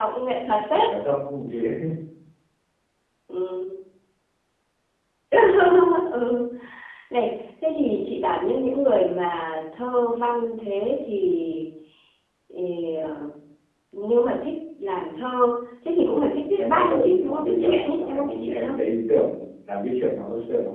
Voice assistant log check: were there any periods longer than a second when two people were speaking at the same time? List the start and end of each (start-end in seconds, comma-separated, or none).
16.6-18.8